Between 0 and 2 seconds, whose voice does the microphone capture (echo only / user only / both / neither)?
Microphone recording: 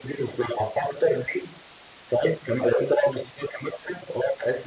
echo only